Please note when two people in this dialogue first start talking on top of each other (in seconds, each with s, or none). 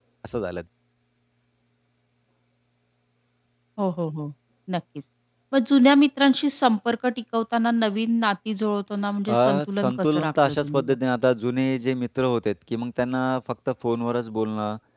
9.3 s